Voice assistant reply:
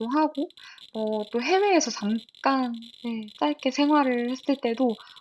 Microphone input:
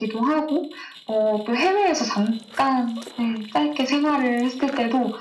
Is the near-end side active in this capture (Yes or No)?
No